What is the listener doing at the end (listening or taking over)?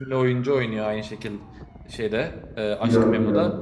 listening